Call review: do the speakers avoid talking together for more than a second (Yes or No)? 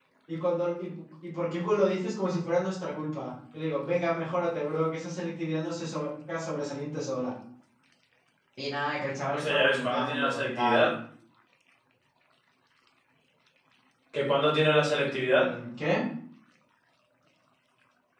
No